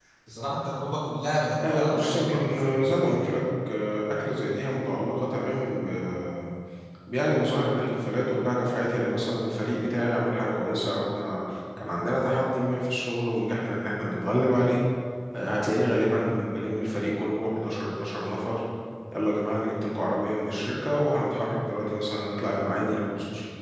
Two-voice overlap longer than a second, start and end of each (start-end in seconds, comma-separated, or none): 1.7-3.4